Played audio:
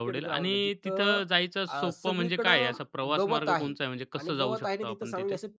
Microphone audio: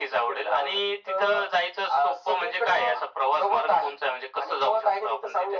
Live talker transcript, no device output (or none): none